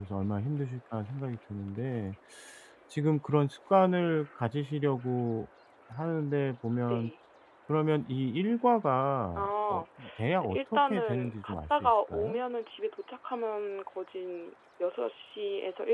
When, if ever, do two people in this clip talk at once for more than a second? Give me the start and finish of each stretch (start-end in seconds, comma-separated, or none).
10.4-12.4